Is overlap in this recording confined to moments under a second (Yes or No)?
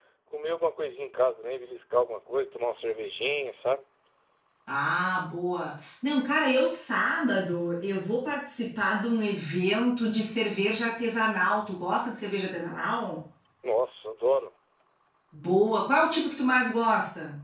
Yes